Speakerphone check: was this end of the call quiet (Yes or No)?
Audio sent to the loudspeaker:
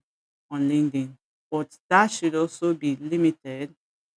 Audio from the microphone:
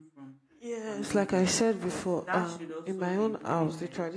No